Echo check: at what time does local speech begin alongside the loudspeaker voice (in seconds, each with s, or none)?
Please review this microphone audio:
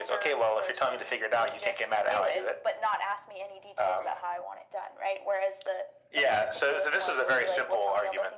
none